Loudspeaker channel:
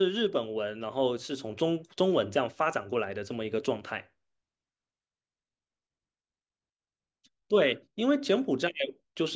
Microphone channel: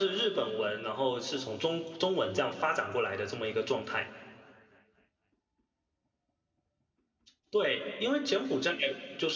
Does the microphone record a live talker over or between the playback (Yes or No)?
No